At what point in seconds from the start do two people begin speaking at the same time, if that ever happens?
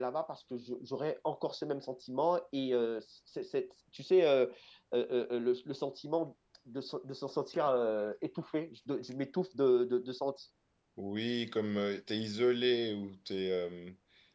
none

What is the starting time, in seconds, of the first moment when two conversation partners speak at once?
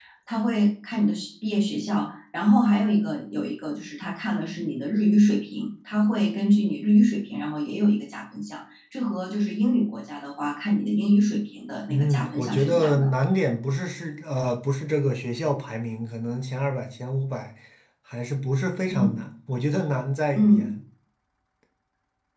11.9 s

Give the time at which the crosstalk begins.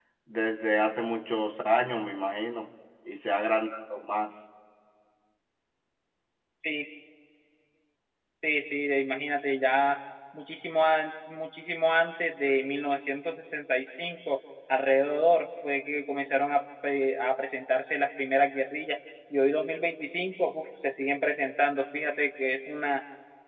none

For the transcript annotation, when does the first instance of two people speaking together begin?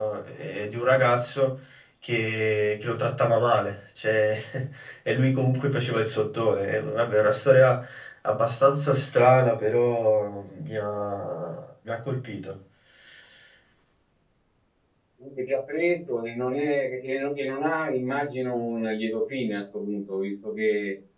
none

